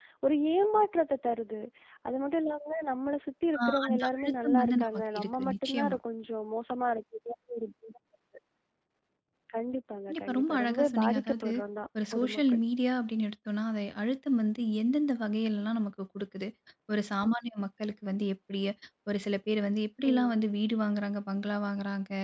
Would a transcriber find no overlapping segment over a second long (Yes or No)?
No